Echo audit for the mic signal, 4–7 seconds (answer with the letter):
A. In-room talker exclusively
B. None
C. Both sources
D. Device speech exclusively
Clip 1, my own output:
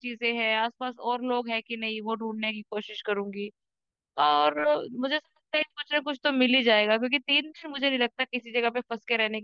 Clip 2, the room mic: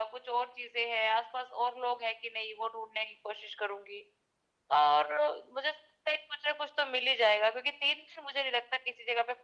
D